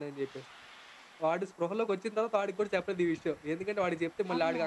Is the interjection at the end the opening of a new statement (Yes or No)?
No